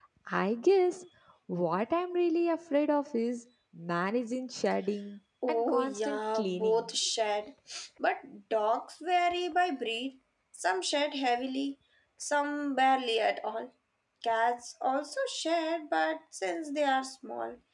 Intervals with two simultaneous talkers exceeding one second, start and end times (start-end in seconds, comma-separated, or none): 5.5-6.8